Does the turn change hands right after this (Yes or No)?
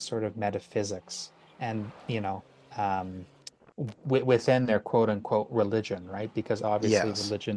No